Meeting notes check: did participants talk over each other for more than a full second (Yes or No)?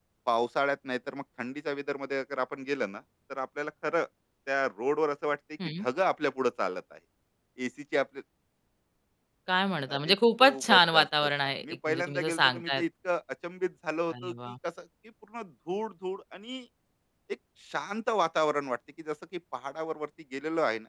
Yes